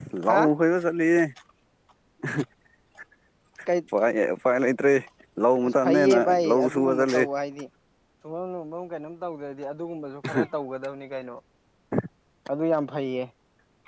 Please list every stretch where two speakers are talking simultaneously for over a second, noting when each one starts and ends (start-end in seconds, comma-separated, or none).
5.6-7.2